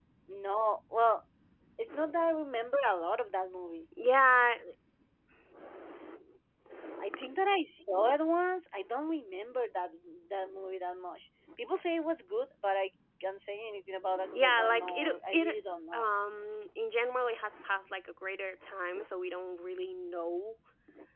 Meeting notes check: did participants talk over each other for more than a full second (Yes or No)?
Yes